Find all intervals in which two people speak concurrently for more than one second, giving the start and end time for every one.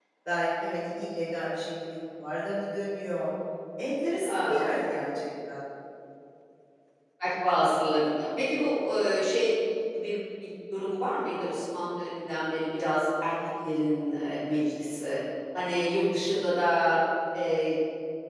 none

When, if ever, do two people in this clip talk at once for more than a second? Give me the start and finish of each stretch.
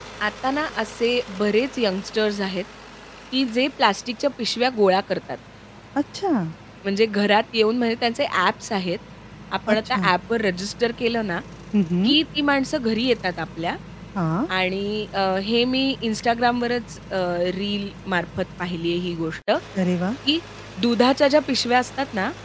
none

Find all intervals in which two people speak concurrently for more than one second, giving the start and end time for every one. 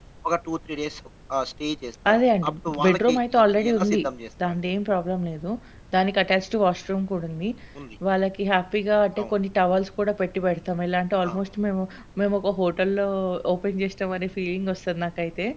2.1-4.0

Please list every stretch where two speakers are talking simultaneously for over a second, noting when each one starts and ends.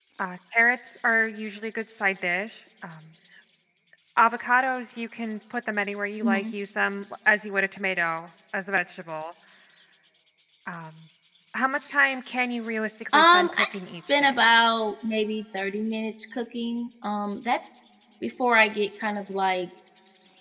13.1-14.3

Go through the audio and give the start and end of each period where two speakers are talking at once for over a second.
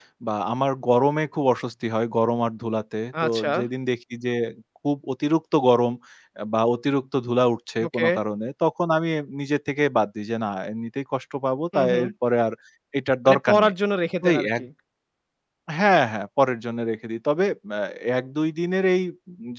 none

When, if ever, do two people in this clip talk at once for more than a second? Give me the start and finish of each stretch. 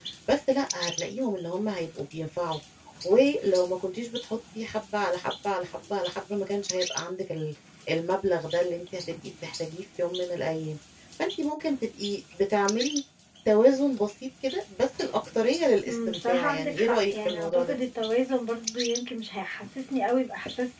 15.8-17.8

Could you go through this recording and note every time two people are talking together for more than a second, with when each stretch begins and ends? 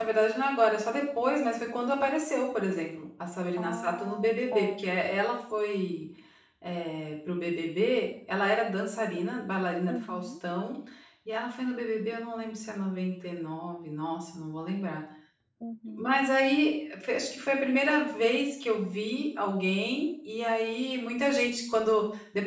3.6-4.8

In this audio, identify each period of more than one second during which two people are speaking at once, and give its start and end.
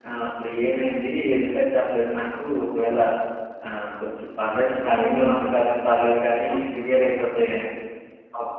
4.8-7.2

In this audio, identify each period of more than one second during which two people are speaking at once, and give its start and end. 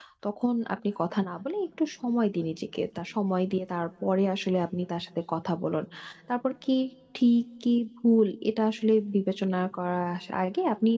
none

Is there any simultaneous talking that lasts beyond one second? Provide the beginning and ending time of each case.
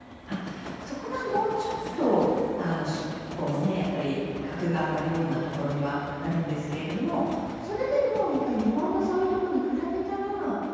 none

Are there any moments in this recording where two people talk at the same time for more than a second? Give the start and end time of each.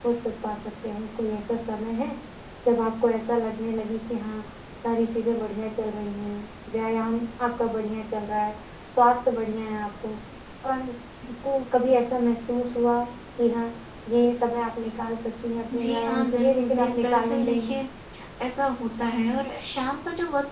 15.8-17.8

